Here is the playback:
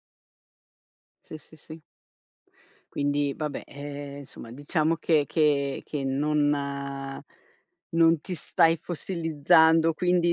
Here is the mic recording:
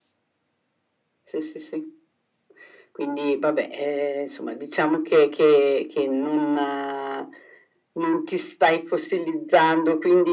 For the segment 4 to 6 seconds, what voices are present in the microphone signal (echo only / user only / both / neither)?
echo only